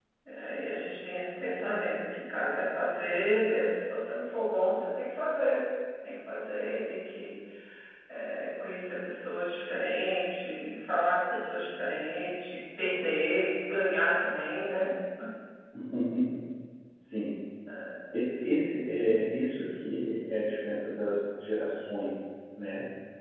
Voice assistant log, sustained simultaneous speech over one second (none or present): none